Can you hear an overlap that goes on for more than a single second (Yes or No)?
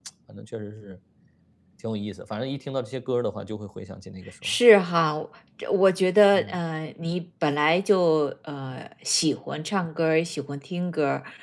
No